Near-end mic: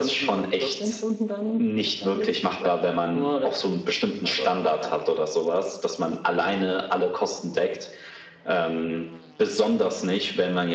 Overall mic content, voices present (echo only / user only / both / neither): echo only